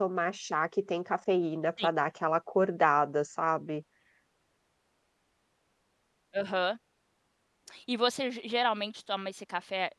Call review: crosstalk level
none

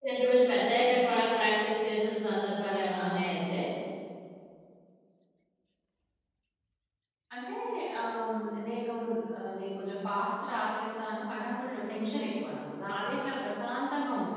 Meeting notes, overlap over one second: none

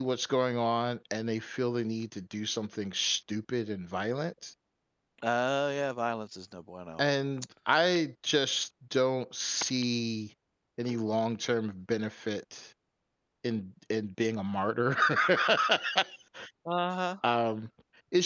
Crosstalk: none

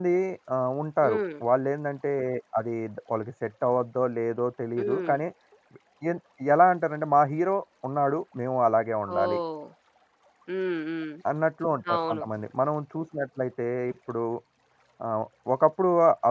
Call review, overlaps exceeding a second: none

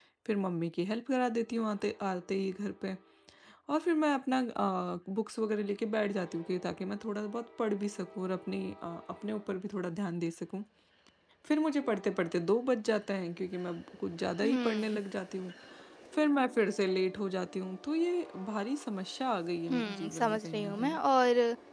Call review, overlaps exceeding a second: present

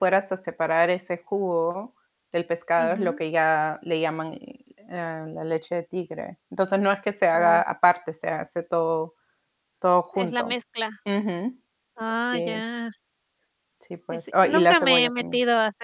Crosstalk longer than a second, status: present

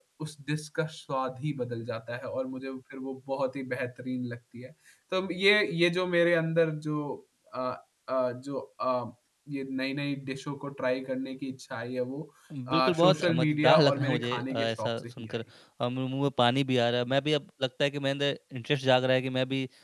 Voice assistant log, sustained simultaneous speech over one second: present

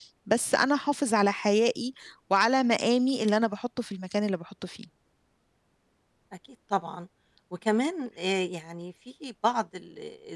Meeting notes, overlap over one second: none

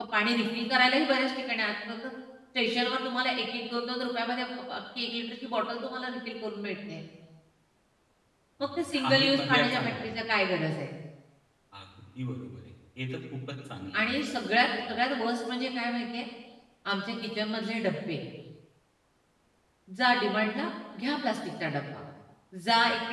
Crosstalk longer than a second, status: present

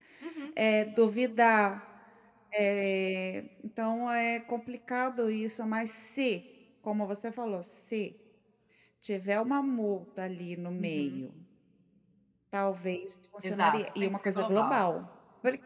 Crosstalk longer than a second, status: present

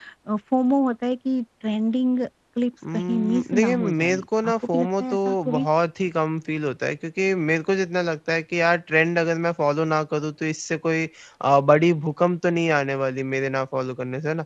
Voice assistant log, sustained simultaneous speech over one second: present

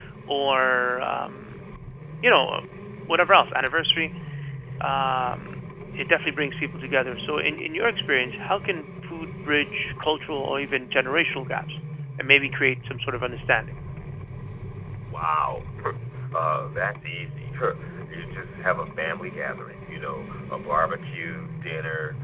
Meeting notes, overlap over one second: none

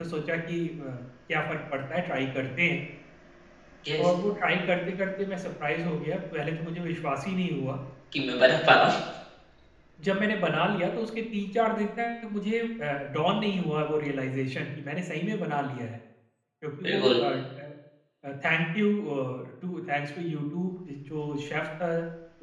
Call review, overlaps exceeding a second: none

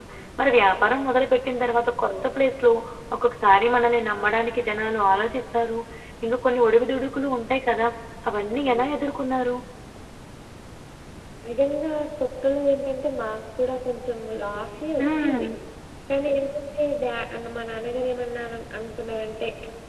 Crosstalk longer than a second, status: none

